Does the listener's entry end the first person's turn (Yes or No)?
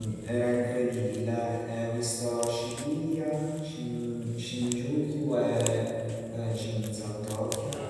No